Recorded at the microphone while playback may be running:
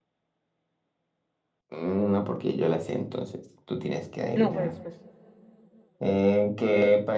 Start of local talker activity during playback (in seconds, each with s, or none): 4.3 s